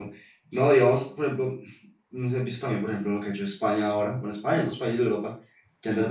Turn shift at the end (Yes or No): No